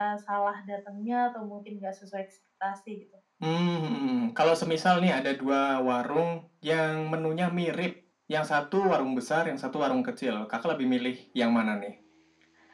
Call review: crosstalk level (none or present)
none